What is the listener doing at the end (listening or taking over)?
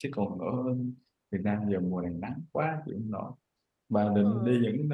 listening